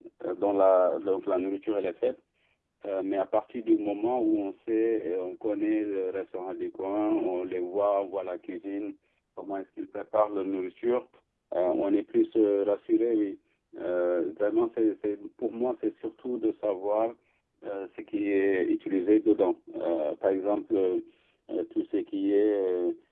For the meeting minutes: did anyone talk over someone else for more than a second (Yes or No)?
No